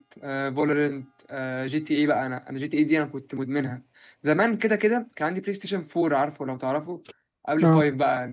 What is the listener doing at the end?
listening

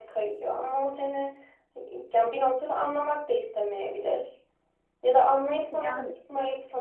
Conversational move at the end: listening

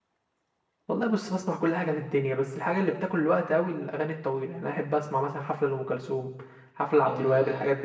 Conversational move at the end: taking over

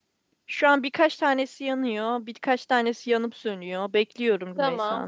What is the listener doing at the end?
taking over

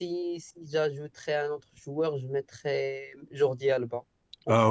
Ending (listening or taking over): taking over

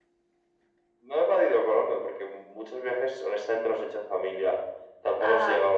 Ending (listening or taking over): listening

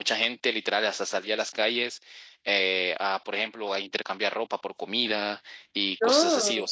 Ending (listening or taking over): listening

